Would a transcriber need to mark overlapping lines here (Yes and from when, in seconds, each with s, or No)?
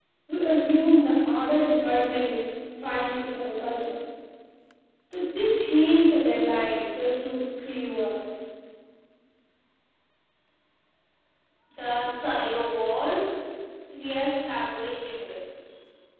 No